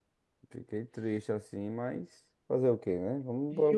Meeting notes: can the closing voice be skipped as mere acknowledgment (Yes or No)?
No